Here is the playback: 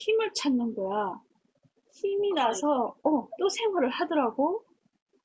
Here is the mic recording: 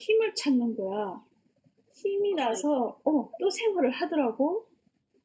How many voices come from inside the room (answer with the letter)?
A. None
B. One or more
A